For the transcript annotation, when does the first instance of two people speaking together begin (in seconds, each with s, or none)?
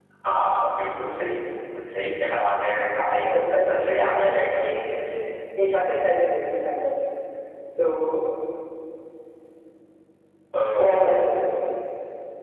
3.0 s